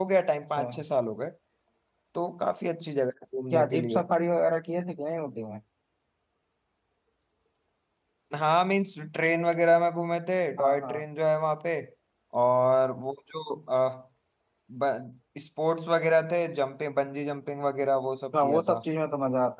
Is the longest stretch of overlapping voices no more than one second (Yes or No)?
Yes